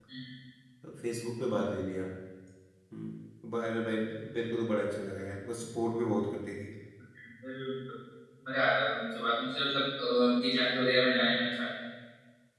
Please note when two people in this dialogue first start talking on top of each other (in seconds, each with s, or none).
none